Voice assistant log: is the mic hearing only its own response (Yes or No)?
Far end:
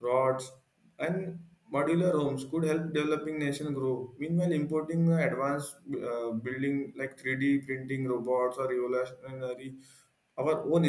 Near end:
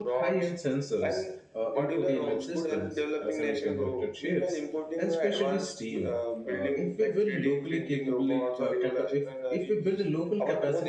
No